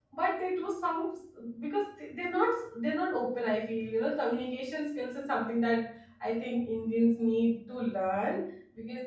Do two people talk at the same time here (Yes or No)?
No